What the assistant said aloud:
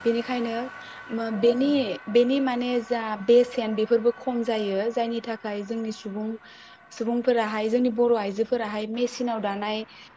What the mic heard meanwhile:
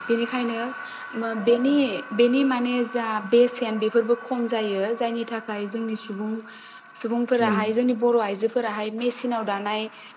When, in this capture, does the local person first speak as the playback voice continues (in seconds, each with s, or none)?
7.4 s